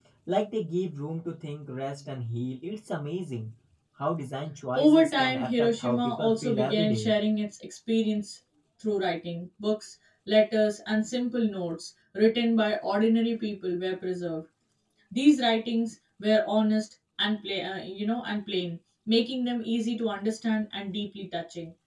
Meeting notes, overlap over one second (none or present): present